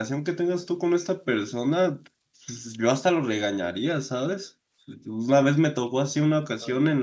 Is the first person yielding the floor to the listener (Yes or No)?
No